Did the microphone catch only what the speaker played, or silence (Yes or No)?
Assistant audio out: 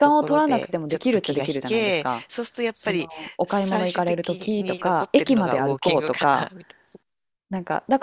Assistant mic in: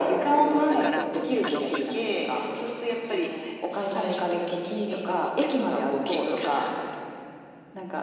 No